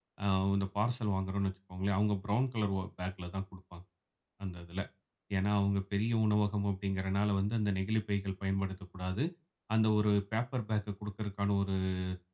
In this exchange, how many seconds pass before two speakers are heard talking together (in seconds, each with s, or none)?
none